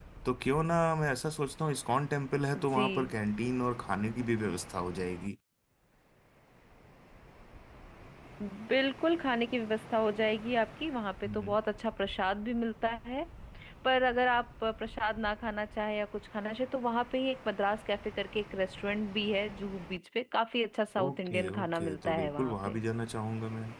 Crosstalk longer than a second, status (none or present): present